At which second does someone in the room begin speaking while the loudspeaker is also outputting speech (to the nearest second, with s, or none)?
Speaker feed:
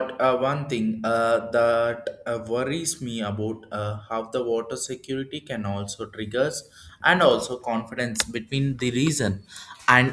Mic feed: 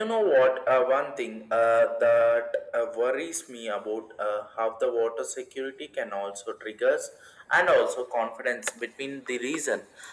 none